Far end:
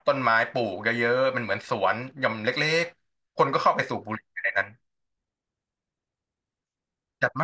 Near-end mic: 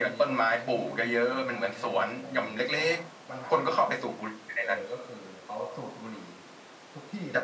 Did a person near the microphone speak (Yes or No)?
Yes